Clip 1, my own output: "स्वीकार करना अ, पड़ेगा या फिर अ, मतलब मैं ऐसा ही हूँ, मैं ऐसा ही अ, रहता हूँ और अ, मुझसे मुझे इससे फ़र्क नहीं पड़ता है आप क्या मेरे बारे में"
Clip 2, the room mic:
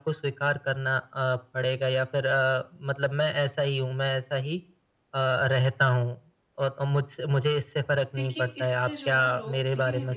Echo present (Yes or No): Yes